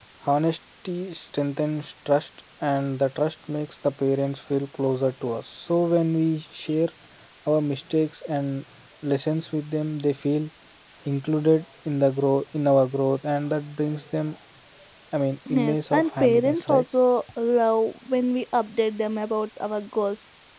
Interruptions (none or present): present